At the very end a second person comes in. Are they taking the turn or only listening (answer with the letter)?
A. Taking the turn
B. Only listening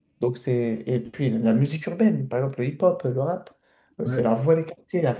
B